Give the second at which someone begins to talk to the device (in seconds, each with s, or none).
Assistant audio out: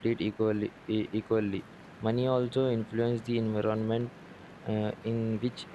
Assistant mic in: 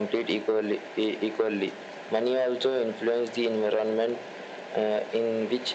none